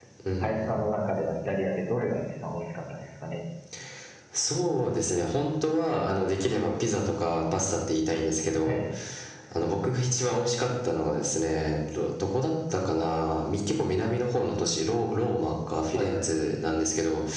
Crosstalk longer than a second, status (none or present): none